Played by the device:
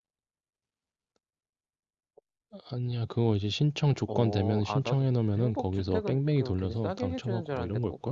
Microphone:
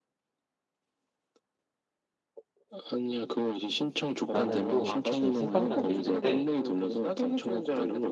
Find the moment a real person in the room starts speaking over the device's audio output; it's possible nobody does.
4 s

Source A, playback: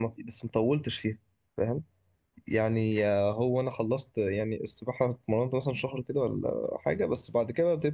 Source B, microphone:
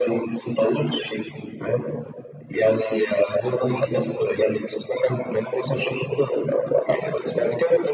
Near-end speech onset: none

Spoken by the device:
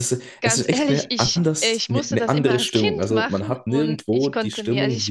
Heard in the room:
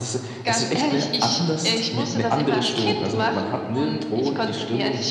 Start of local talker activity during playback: none

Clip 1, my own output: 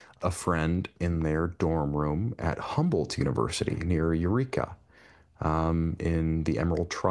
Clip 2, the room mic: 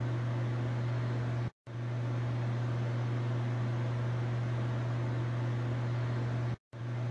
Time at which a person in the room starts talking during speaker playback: none

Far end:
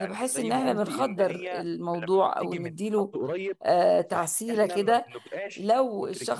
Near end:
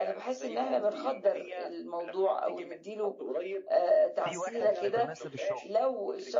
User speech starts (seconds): 4 s

